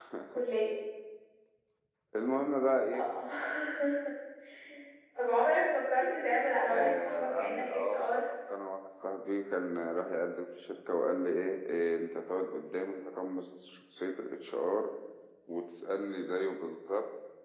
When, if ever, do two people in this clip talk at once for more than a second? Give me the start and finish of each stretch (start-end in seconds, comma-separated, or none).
6.7-8.0